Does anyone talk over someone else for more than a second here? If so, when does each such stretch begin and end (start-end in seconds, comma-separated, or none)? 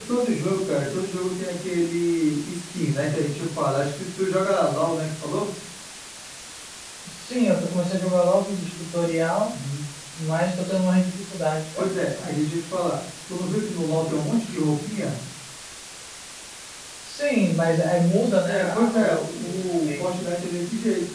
18.4-20.0